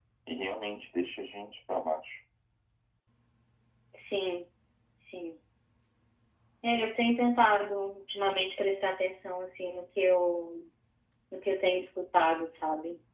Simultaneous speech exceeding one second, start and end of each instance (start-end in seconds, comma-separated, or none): none